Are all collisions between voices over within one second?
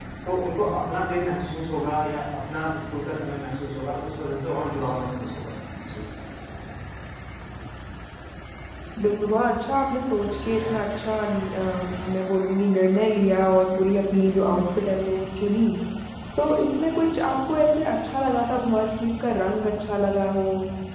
Yes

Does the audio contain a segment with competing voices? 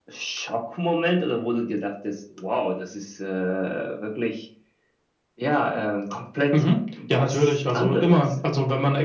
Yes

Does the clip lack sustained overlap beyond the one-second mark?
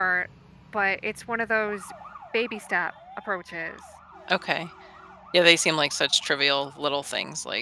Yes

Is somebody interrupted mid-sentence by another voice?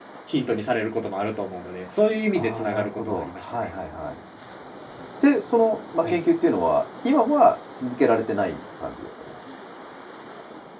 Yes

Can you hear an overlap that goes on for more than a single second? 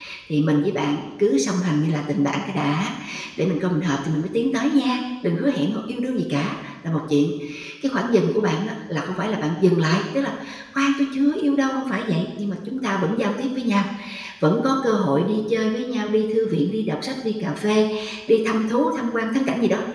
No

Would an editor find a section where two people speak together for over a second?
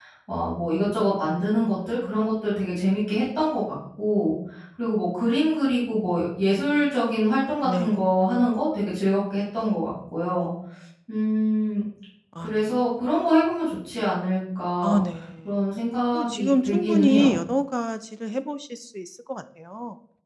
Yes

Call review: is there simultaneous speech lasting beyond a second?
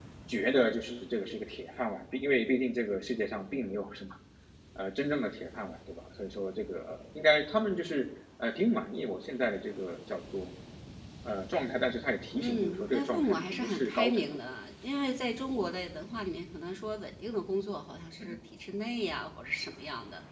Yes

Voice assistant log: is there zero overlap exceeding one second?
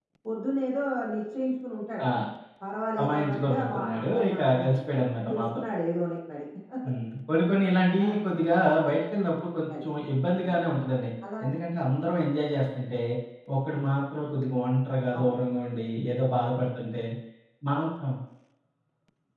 No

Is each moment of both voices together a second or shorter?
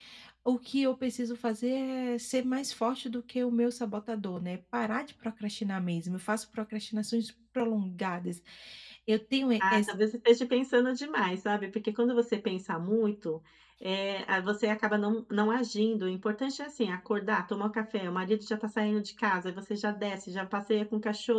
Yes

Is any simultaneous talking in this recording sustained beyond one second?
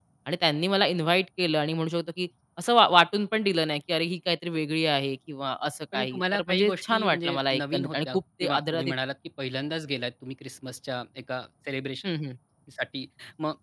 Yes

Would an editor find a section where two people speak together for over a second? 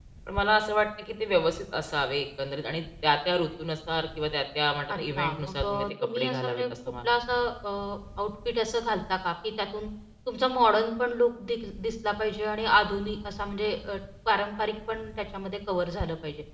Yes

